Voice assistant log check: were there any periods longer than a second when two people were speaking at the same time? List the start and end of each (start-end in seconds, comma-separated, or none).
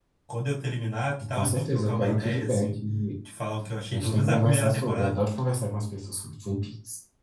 1.3-2.8, 3.9-5.1